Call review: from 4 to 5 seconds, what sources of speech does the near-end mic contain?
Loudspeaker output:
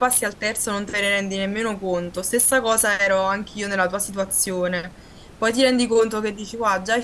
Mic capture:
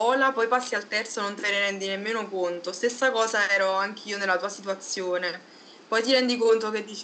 echo only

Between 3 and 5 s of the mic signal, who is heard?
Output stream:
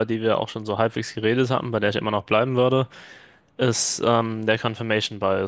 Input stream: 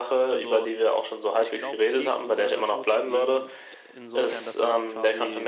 both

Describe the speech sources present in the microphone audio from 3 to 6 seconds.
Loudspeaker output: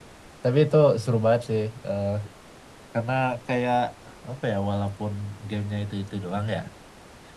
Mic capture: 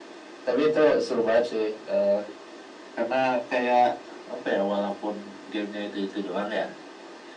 echo only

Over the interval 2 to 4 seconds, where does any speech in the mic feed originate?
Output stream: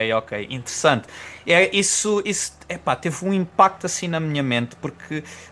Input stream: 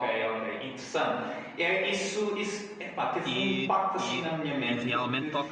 both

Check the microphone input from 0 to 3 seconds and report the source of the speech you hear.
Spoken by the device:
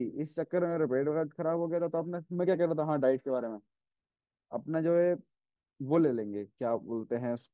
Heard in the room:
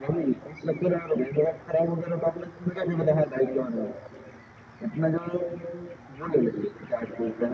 echo only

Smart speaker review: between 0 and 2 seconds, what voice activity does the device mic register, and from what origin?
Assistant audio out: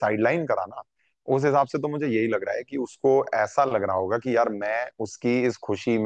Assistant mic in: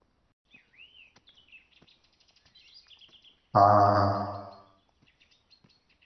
neither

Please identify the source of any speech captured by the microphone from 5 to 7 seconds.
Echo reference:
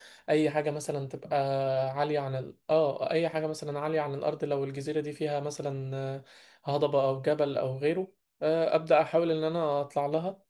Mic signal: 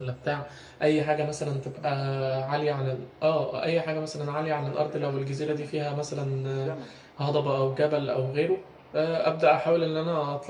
both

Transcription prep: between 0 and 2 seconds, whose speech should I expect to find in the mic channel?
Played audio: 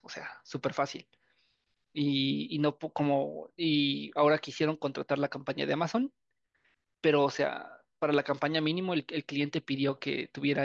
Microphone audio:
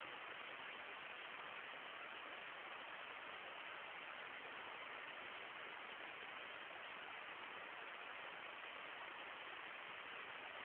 neither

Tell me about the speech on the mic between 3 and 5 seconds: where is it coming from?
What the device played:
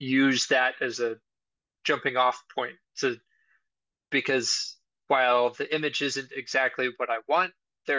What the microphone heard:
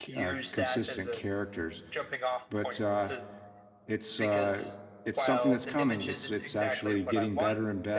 both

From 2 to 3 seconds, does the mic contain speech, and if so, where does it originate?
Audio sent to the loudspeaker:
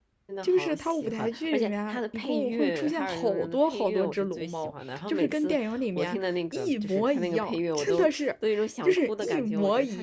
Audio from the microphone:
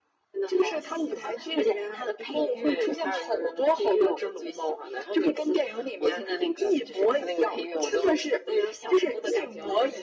echo only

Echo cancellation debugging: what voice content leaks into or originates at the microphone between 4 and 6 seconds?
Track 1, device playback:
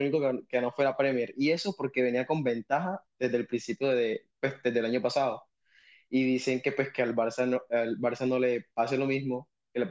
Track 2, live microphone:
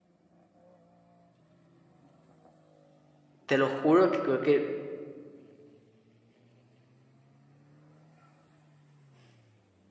user only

